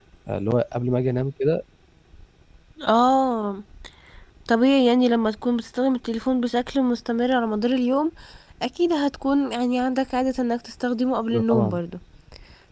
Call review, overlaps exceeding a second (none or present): none